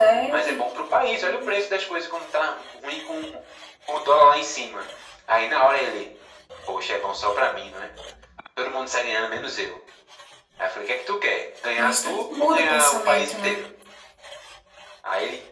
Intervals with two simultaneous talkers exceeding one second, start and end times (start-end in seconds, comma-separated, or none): 11.8-13.6